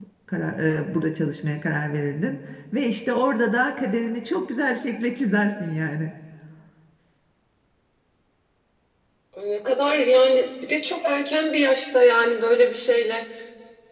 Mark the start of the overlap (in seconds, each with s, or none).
none